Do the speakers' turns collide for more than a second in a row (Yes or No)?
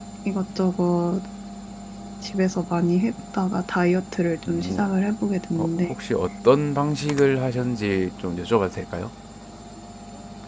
No